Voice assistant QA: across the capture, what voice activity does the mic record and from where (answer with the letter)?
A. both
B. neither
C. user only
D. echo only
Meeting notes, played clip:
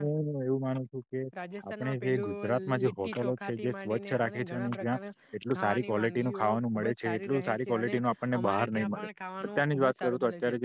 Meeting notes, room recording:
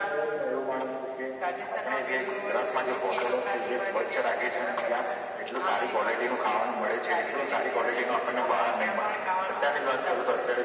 D